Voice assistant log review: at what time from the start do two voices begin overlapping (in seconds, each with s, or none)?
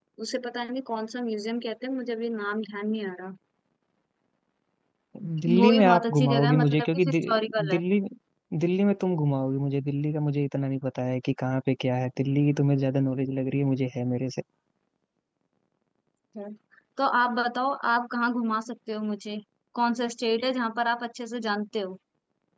5.5 s